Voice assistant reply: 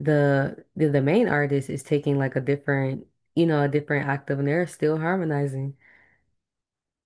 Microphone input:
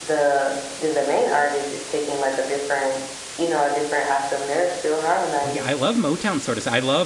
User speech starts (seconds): 5.4 s

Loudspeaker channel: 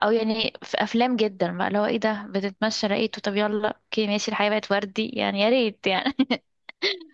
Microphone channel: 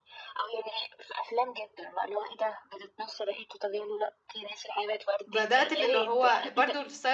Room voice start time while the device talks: 5.3 s

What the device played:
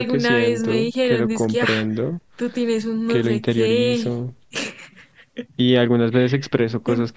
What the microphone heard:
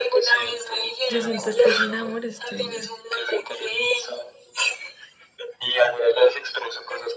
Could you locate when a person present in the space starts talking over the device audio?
1.1 s

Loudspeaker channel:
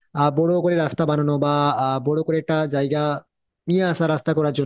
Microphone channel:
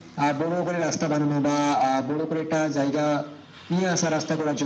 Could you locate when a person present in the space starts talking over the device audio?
none

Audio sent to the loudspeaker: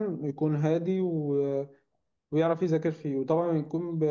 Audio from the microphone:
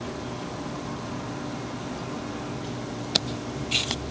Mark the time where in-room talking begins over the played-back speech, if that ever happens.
none

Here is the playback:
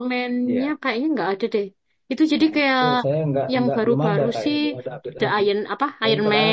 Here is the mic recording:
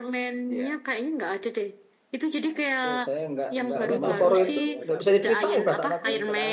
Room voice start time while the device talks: 3.7 s

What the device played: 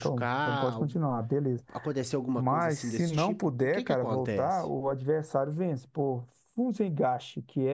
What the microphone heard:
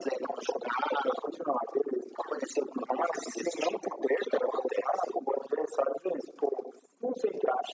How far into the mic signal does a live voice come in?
none

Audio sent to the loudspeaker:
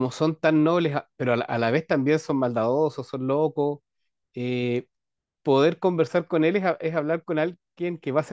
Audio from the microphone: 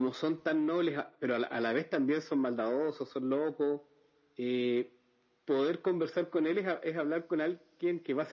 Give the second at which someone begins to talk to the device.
none

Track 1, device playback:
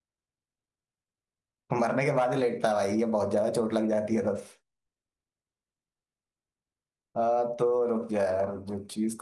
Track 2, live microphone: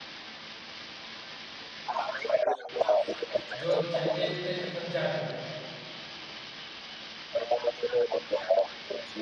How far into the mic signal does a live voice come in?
3.6 s

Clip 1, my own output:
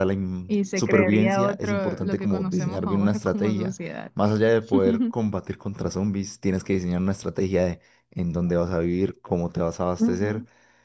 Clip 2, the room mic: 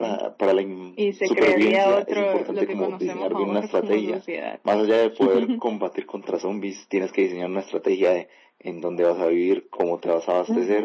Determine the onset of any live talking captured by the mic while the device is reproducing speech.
none

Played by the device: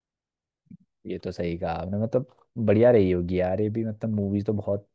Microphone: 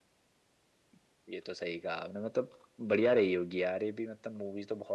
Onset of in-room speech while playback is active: none

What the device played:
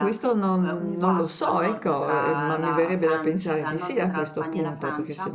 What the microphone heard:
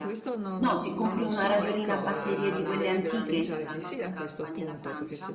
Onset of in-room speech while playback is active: 0.6 s

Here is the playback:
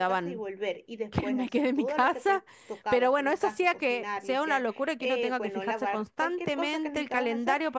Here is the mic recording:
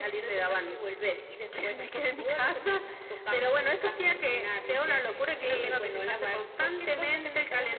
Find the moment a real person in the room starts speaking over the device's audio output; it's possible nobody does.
5.2 s

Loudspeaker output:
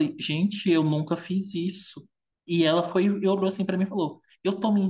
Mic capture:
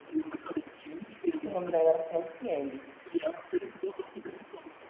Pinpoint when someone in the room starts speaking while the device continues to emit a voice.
1.3 s

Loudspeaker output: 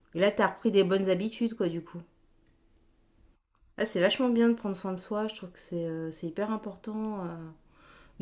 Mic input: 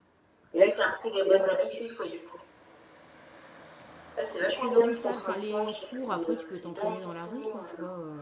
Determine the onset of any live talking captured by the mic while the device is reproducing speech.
4.5 s

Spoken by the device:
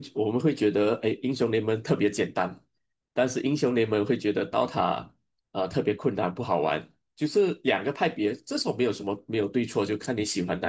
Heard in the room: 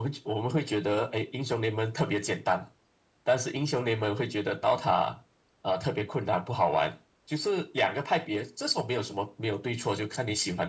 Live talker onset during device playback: none

